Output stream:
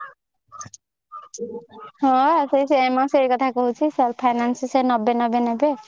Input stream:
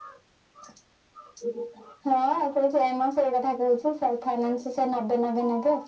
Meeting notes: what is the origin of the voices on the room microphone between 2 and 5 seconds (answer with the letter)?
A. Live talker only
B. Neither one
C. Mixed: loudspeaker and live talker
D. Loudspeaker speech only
D